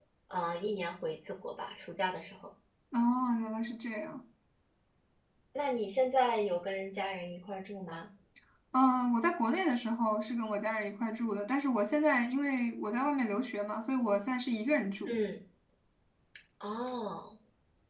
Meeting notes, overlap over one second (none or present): none